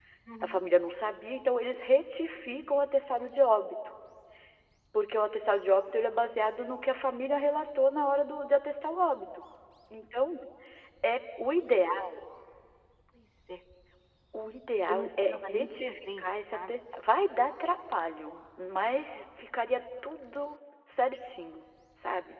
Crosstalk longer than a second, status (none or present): present